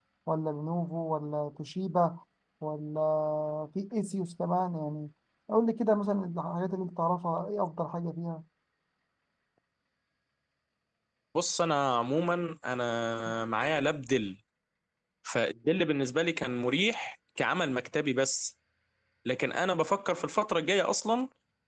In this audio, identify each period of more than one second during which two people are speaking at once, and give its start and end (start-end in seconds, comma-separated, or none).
none